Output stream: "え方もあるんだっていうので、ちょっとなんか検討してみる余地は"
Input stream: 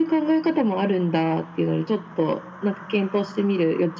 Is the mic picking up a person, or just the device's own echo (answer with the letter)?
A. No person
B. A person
A